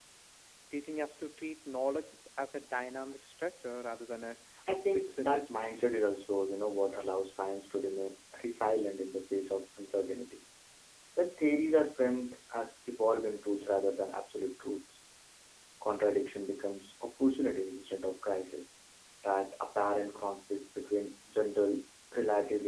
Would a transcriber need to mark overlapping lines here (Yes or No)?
Yes